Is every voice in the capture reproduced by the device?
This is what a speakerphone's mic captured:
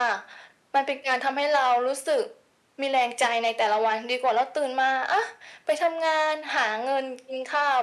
Yes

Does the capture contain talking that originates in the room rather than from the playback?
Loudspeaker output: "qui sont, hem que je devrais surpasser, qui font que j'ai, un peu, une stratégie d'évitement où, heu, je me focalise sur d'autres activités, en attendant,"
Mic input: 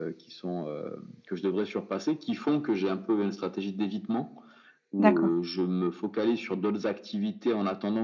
Yes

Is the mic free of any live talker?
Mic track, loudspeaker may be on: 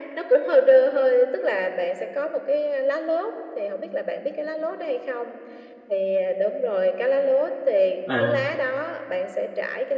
No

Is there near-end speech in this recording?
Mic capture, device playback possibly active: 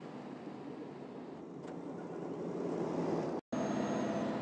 No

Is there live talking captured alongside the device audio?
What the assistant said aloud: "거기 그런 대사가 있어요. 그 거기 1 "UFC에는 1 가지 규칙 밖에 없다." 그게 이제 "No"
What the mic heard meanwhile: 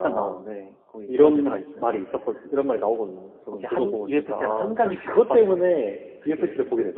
Yes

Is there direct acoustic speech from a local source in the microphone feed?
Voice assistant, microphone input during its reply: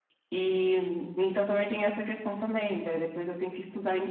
No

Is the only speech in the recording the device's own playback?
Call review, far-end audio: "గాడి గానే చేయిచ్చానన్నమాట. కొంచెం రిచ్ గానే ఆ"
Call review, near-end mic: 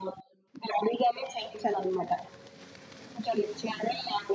Yes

